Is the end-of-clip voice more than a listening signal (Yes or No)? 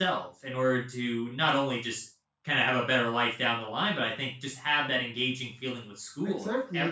Yes